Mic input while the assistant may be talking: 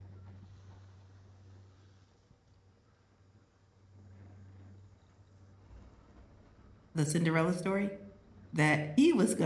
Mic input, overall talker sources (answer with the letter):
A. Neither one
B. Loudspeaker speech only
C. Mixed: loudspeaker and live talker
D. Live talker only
D